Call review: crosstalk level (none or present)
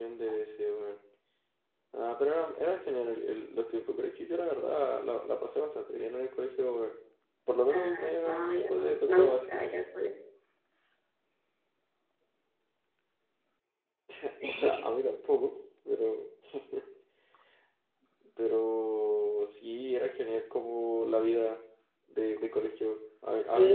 present